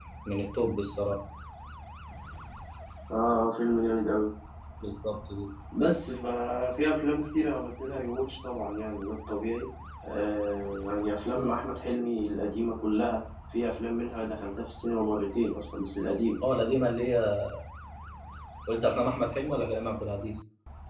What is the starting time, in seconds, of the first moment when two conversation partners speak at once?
none

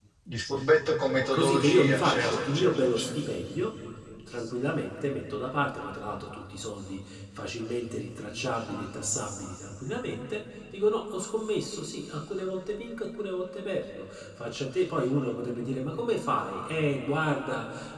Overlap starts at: 1 s

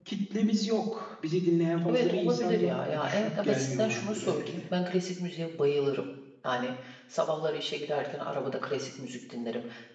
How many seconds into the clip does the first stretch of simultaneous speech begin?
2 s

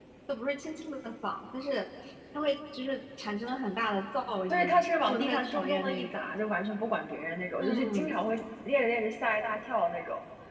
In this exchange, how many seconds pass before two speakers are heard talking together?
5 s

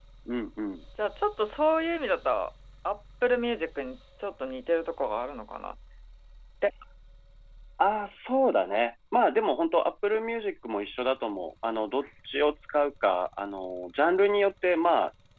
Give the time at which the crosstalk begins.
none

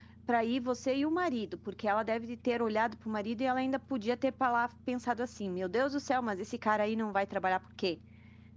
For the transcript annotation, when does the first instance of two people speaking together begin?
none

